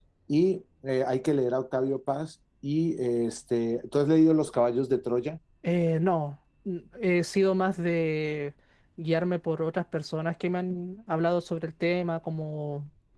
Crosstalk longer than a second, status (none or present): none